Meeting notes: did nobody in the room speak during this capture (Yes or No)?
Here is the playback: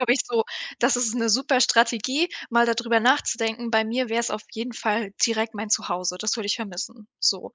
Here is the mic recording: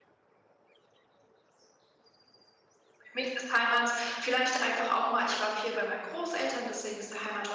No